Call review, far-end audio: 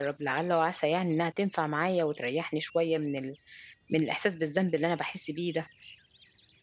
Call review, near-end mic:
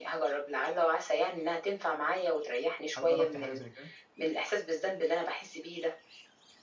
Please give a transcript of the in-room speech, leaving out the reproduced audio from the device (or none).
هل جرّبتِ حاجة زي كده؟